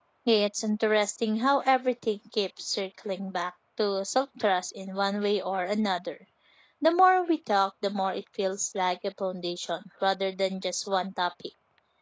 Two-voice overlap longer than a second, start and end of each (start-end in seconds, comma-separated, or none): none